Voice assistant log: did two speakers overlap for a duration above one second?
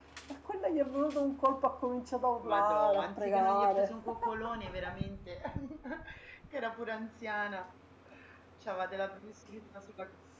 Yes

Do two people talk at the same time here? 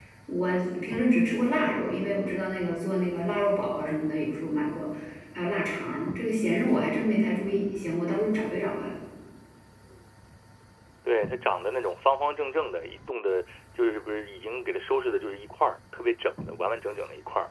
No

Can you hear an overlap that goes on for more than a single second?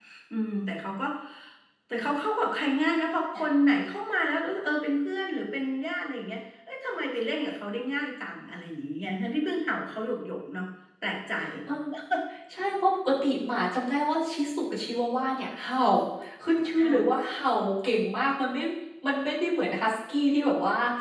No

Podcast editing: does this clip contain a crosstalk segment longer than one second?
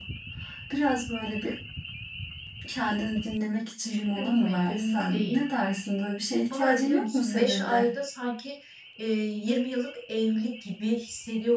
Yes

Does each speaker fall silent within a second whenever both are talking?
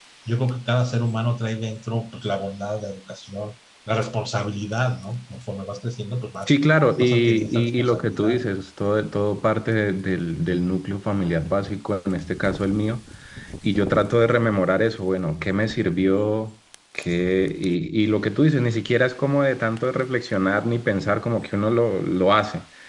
No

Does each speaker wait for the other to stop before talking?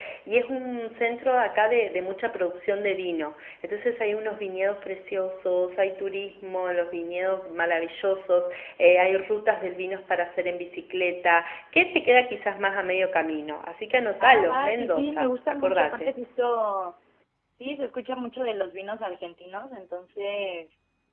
No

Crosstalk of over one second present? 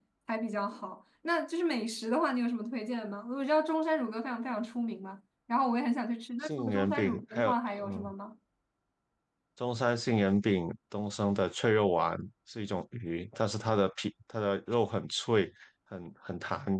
Yes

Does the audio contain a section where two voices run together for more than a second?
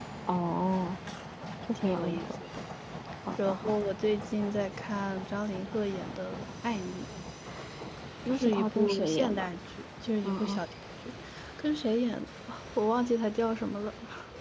Yes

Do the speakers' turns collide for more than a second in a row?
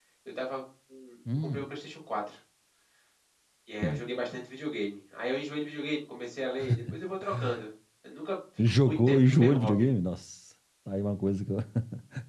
Yes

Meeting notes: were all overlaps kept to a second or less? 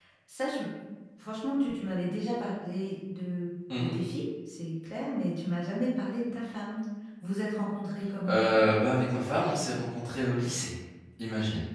Yes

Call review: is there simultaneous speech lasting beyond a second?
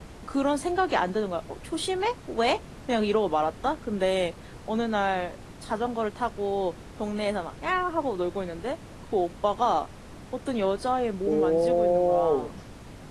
Yes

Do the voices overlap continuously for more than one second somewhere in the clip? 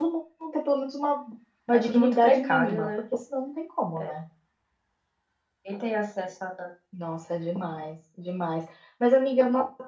Yes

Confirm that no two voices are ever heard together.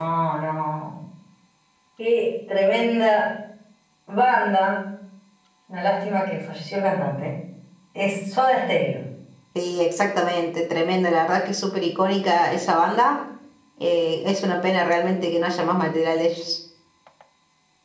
Yes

